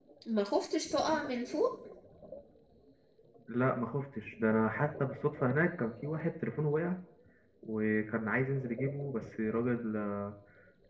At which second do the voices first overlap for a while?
none

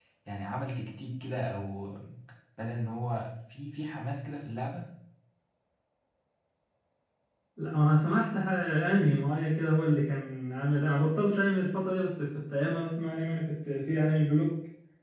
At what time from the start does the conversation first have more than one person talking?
none

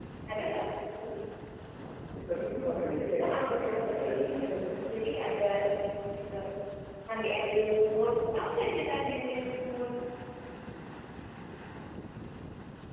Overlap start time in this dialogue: 3.2 s

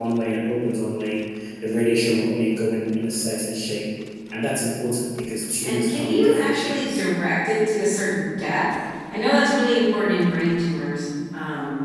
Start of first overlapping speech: 5.6 s

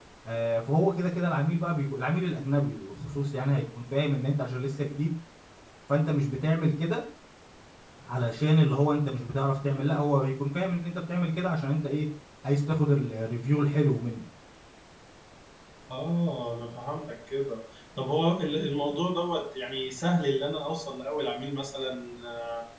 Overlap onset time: none

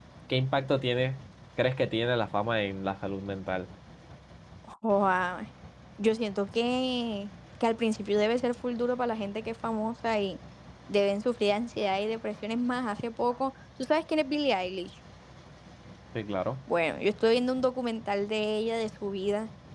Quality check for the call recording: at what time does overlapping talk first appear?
none

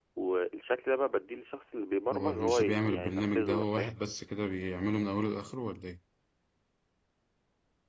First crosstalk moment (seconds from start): 2.1 s

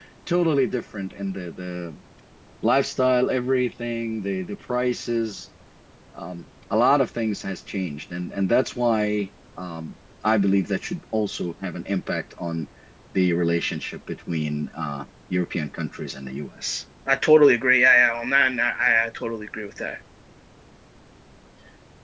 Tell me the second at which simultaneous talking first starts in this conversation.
none

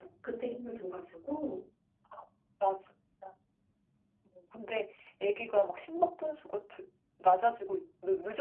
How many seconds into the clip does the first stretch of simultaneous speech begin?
none

